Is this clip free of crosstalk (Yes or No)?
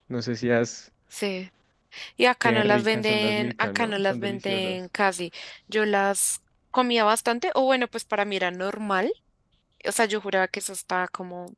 No